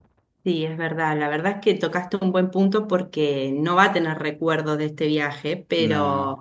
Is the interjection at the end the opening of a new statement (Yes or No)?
No